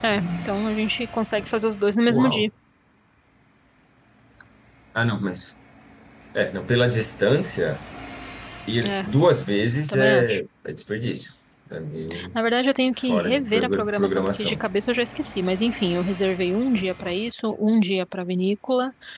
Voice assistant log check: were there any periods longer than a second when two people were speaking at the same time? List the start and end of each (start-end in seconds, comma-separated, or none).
13.0-14.6